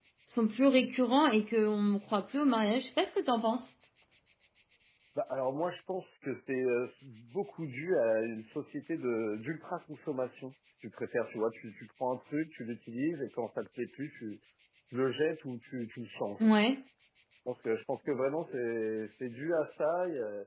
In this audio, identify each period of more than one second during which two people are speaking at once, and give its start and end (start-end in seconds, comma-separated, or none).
none